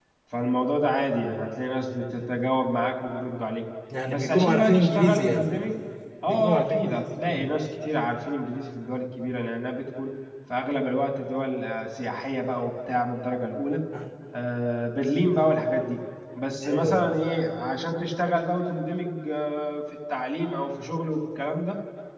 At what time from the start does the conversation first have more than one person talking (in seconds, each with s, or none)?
4.1 s